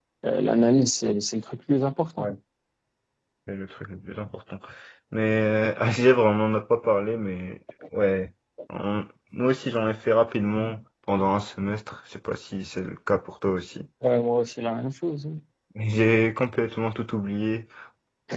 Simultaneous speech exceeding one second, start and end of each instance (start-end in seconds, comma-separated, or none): none